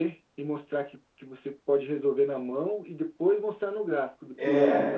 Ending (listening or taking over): listening